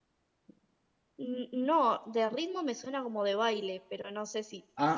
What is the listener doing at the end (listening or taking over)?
taking over